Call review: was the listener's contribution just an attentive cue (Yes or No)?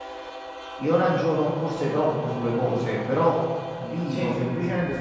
Yes